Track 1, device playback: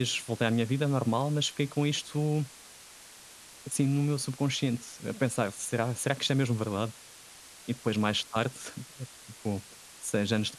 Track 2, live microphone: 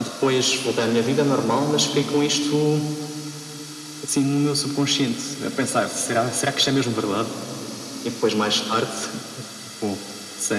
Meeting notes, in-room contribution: none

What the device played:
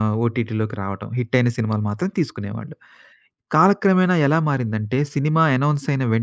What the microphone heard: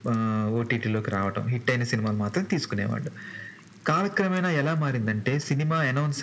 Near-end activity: none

